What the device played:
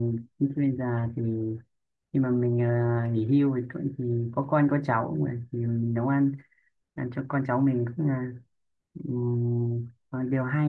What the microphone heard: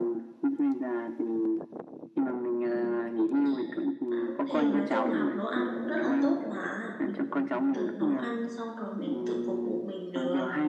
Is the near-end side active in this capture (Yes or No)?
Yes